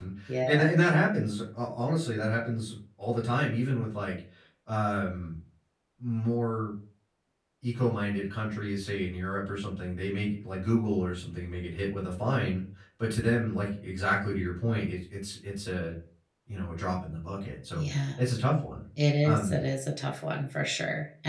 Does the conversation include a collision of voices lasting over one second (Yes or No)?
No